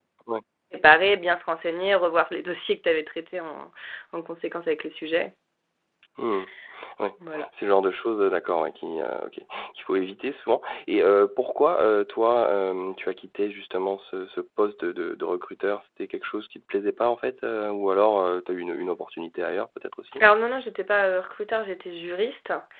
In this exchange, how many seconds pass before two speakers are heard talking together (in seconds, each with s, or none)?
none